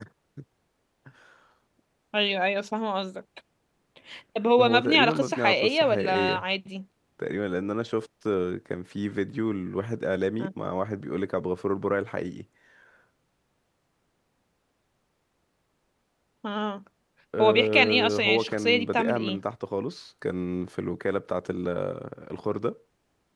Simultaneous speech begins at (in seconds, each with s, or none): 4.6 s